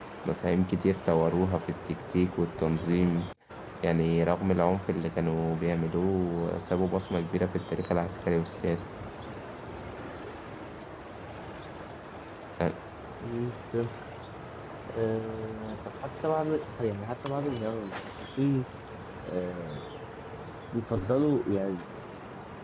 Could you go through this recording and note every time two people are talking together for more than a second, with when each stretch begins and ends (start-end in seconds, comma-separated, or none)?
none